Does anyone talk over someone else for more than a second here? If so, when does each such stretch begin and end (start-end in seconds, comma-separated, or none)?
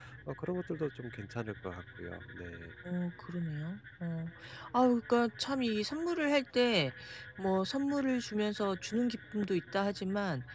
none